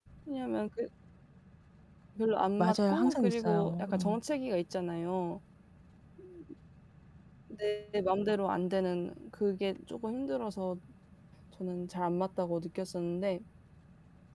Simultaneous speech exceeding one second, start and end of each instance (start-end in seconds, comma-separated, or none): 2.6-4.2